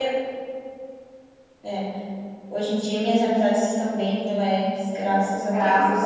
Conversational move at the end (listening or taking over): taking over